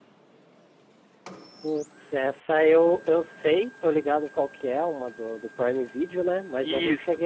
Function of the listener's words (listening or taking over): listening